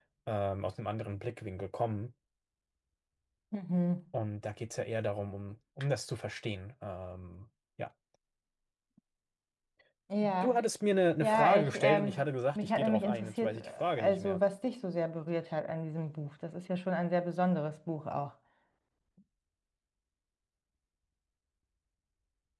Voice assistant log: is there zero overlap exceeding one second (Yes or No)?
No